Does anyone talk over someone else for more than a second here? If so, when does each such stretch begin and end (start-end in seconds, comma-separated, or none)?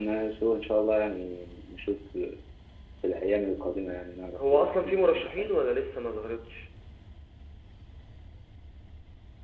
4.4-5.6